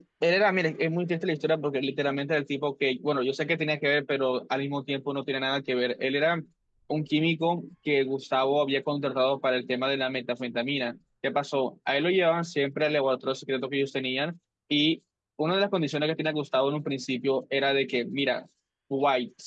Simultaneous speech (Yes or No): No